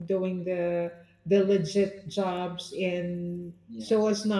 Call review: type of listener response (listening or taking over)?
listening